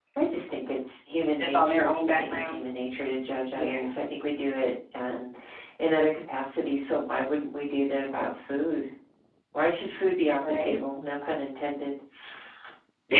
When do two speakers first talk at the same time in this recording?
1 s

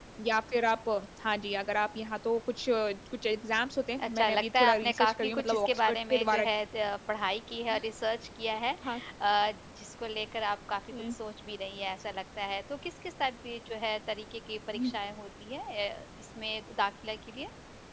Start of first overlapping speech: 4 s

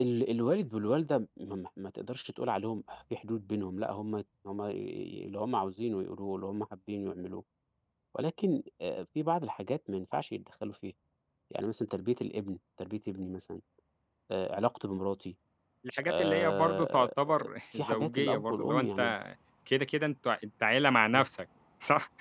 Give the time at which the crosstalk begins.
16 s

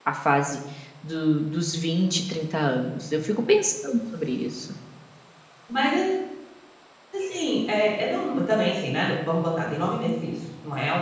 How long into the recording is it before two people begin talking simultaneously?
none

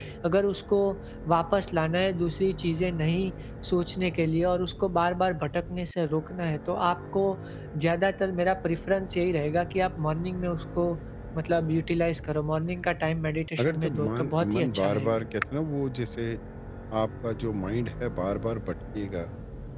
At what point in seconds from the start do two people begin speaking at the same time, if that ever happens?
14 s

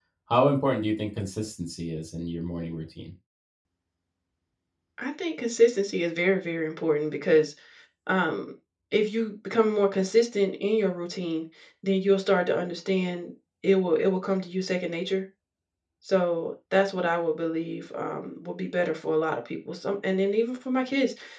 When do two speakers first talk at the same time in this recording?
none

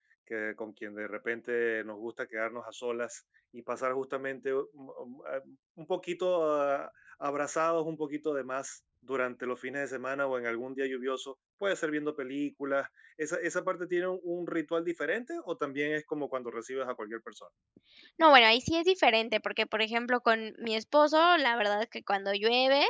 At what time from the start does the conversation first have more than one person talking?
none

